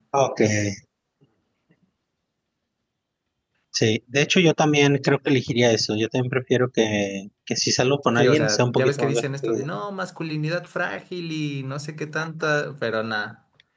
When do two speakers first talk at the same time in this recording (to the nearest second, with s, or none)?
8 s